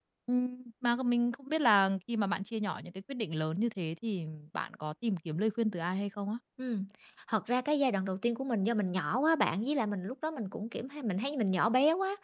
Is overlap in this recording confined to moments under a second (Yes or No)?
Yes